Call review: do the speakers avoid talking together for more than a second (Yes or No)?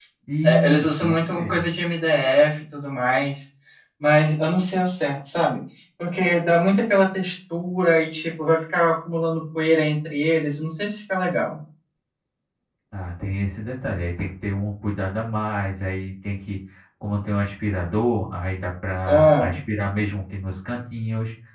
No